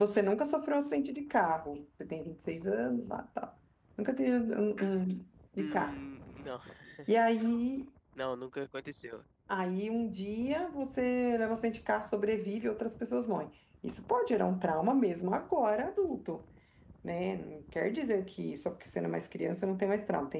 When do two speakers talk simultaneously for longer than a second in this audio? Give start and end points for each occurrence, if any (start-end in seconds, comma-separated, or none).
none